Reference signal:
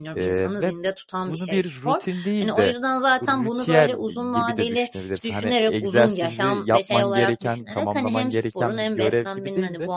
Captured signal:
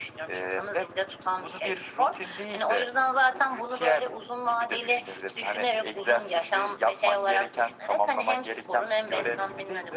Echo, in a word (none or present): present